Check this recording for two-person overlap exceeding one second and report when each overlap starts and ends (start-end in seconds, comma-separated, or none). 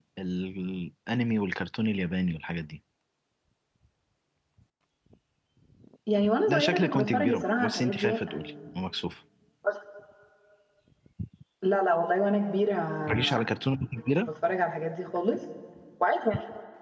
6.5-8.5